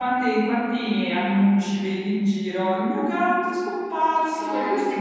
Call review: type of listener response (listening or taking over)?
listening